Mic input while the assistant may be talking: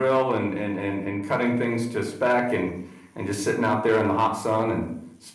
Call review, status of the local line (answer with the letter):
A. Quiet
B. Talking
A